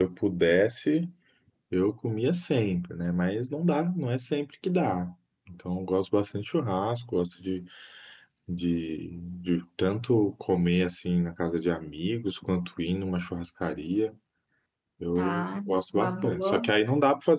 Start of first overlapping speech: 15 s

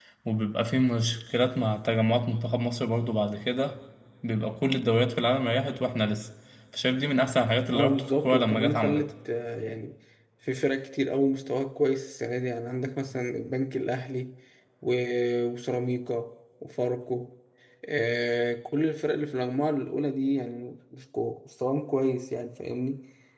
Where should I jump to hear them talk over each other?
8 s

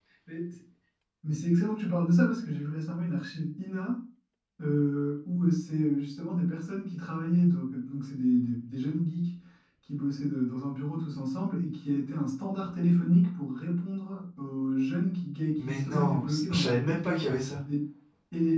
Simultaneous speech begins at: 16 s

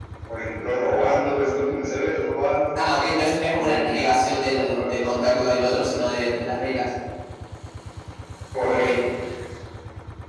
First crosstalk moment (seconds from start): 4 s

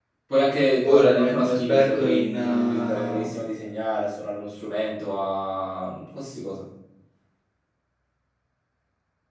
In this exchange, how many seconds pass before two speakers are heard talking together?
1 s

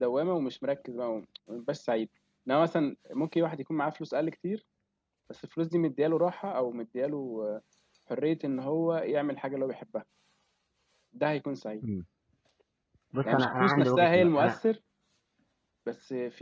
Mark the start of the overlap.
13 s

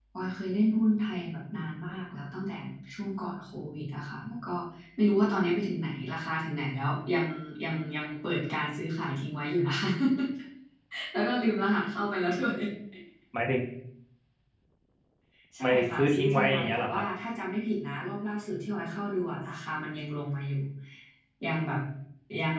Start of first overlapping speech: 16 s

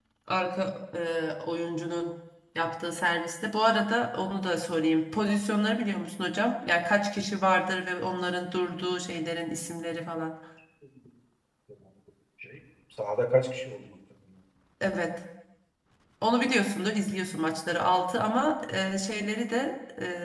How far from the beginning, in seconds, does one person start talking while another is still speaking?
none

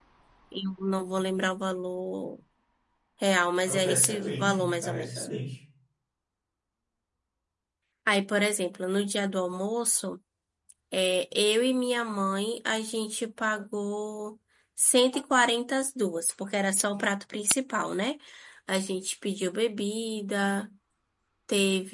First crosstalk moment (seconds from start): 4 s

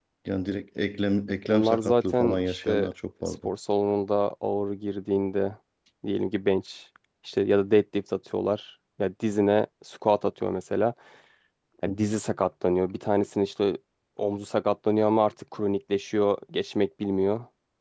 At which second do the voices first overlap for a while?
1 s

